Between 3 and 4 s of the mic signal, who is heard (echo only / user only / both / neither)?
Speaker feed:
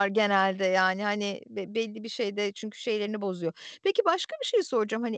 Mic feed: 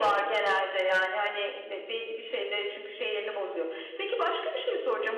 echo only